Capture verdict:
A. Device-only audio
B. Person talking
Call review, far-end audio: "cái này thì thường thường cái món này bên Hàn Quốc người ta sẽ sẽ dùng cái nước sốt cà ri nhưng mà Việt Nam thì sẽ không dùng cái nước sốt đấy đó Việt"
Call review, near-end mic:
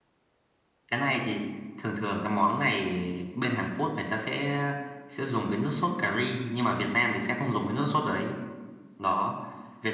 A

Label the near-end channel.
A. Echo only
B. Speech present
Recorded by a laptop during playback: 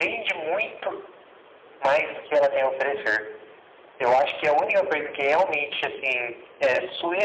A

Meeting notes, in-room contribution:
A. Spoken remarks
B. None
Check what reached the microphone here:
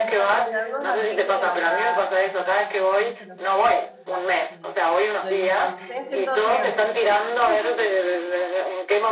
A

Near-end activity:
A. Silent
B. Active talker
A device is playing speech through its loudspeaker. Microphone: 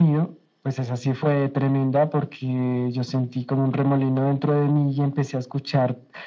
A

